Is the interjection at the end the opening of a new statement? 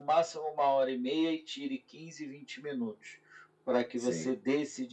No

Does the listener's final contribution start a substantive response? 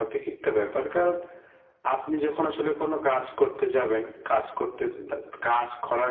No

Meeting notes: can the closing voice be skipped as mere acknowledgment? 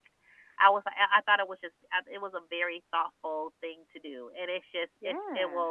Yes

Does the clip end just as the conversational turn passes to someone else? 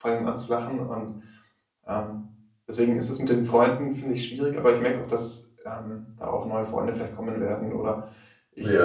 Yes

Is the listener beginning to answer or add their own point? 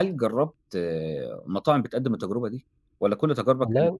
No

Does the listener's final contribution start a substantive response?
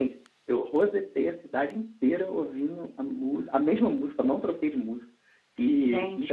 Yes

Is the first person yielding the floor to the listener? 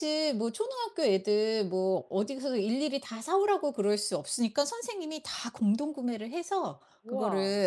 No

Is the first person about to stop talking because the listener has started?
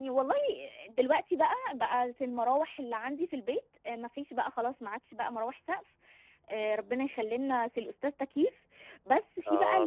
No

